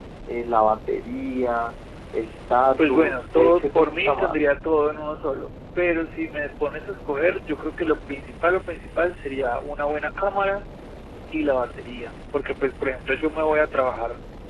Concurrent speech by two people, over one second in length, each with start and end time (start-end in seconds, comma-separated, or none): 2.9-4.5